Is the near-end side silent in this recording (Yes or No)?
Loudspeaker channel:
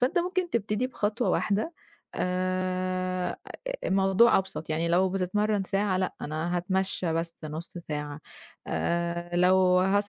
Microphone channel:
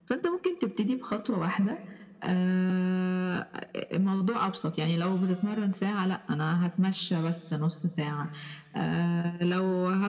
Yes